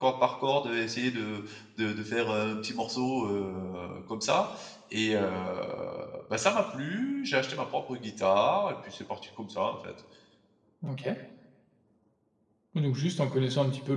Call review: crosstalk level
none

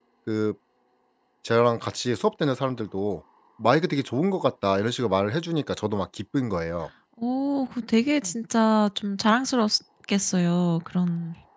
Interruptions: none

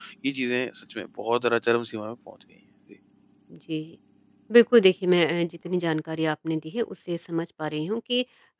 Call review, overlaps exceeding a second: none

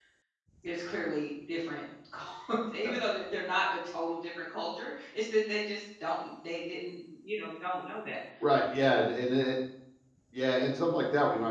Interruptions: none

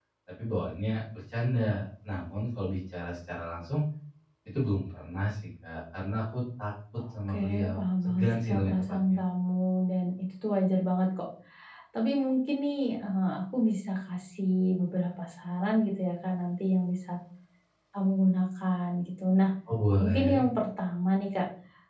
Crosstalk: present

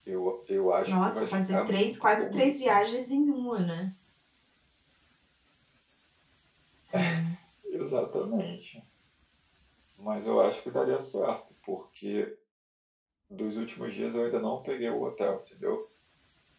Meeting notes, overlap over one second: present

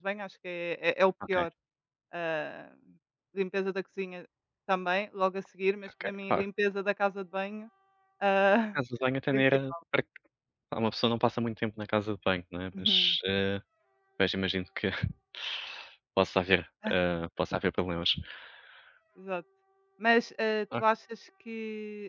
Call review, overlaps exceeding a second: none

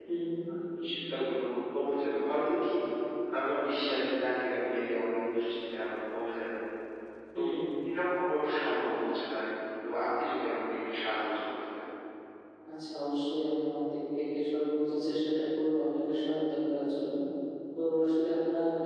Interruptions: none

